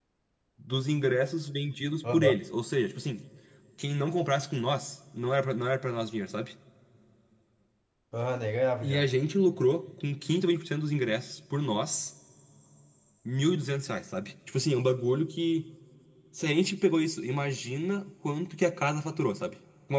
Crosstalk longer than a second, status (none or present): none